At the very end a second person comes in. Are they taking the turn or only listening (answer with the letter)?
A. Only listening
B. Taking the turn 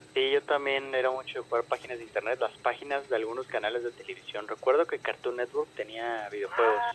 B